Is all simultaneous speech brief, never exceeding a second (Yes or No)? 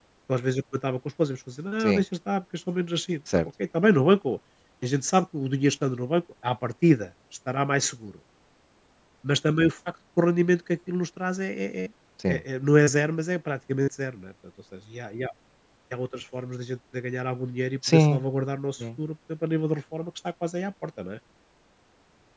Yes